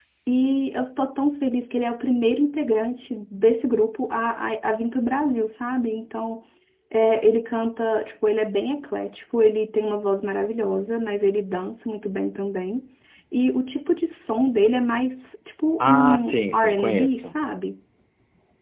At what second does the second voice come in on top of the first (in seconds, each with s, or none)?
15.8 s